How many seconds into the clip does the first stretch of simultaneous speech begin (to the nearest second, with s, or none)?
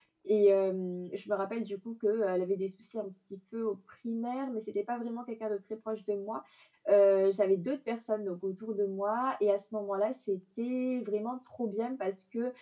none